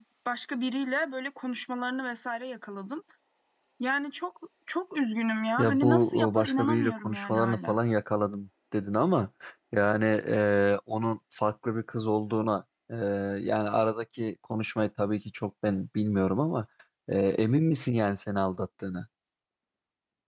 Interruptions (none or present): present